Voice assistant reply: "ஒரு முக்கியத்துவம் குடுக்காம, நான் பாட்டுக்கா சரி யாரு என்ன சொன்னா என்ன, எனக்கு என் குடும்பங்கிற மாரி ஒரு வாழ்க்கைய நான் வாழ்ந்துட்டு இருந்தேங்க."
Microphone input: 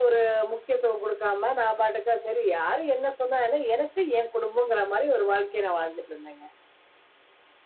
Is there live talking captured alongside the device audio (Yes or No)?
No